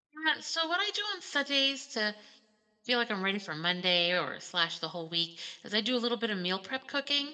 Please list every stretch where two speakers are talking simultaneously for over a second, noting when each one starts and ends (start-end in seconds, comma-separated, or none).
none